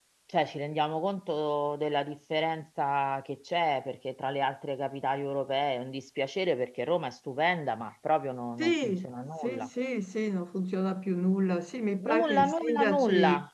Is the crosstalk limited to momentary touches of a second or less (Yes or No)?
No